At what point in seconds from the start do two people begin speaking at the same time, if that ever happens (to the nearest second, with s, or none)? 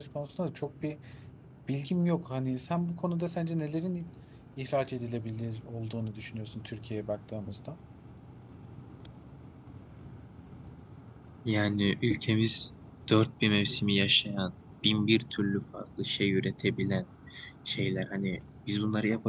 none